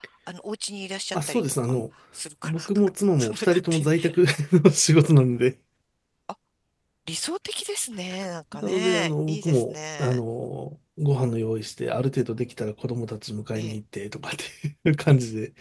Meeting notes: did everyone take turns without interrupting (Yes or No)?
No